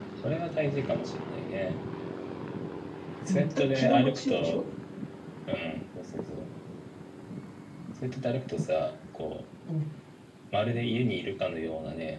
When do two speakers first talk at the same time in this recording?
3.3 s

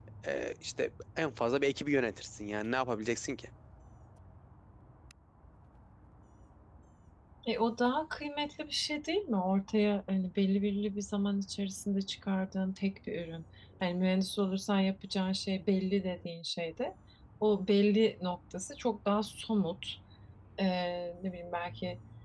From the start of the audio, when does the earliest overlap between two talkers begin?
none

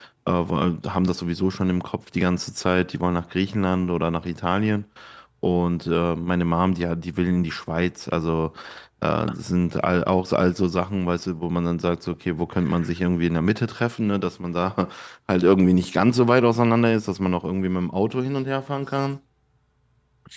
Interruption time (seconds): none

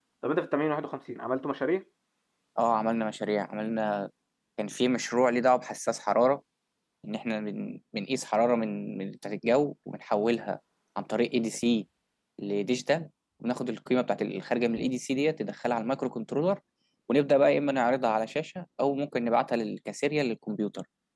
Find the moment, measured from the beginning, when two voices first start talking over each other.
none

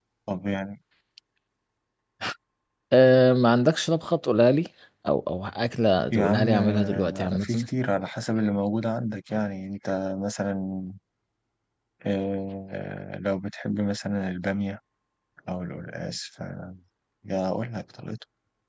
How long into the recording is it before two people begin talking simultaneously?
6.1 s

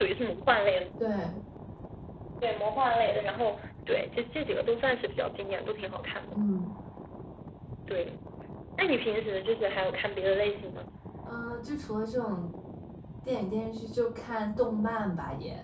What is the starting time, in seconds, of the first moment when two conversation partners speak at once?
none

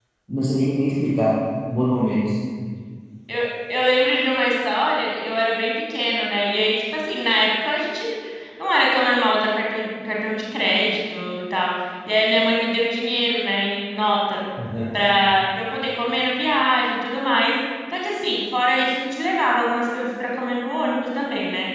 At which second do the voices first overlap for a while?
none

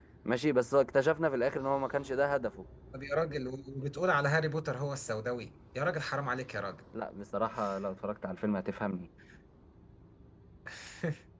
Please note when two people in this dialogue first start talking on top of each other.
none

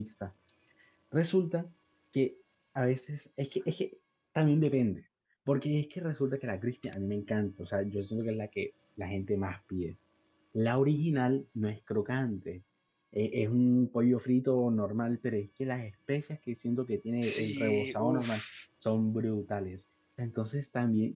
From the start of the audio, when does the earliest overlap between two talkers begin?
17.2 s

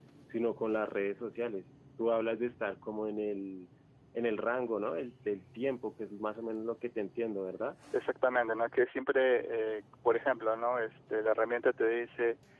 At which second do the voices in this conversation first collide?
none

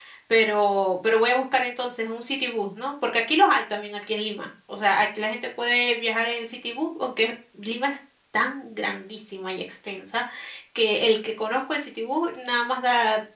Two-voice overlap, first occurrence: none

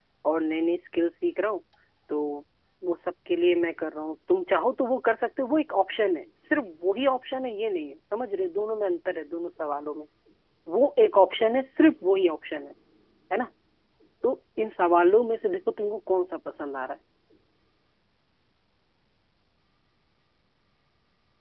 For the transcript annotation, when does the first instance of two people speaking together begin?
none

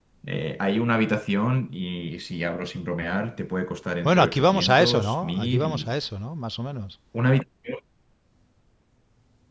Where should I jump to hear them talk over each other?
4.0 s

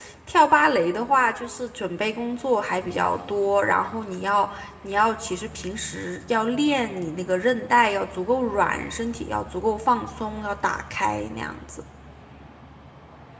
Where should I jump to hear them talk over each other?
none

